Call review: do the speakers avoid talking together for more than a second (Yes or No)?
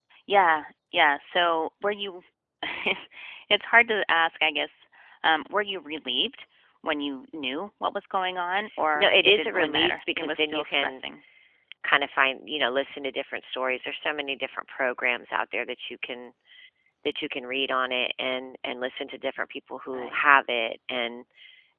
No